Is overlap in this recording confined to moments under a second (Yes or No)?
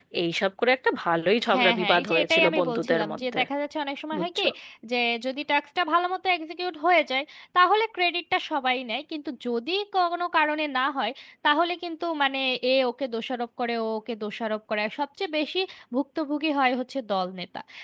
No